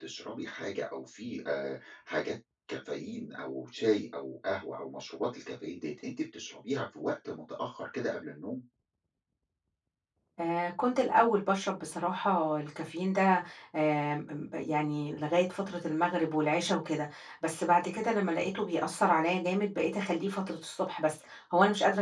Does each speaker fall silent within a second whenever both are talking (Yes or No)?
Yes